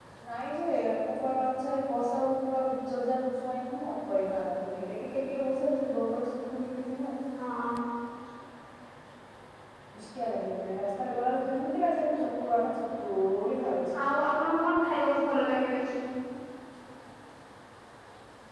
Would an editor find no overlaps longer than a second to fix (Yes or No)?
Yes